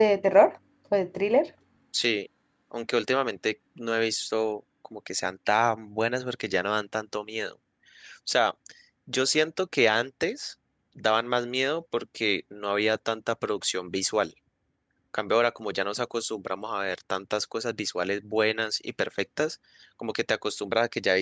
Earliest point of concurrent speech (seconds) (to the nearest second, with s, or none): none